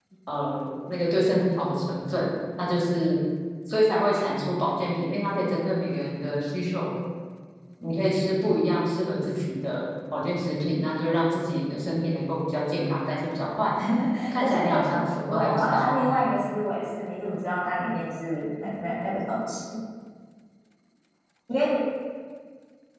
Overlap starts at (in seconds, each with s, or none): 14.4 s